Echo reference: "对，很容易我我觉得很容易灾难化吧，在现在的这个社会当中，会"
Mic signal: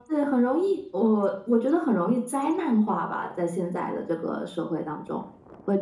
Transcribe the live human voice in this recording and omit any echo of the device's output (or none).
none